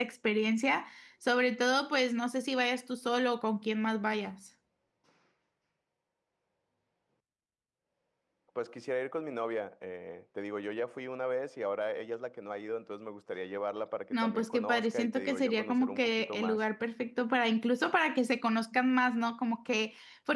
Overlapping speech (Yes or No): Yes